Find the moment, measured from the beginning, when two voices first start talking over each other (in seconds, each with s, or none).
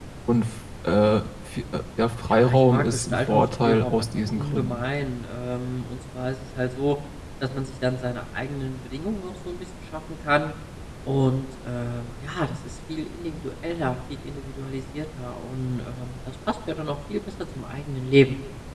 2.3 s